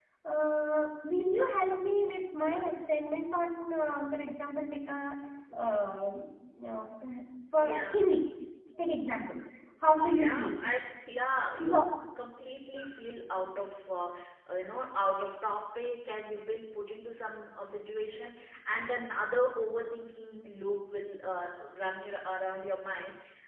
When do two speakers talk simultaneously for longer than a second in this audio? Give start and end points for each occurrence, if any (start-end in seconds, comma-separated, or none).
none